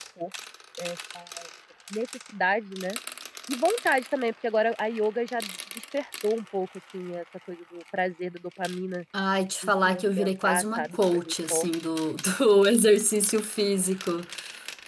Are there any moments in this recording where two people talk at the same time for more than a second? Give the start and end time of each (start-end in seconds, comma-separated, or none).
9.6-11.6